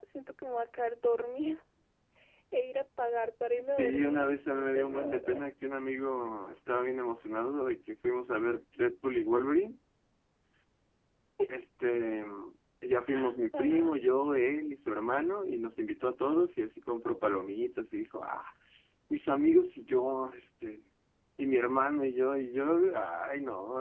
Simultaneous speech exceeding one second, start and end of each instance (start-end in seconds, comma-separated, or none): 3.0-5.4